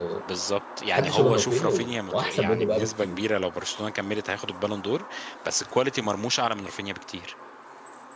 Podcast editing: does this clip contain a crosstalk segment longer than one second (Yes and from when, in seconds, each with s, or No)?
Yes, from 0.9 s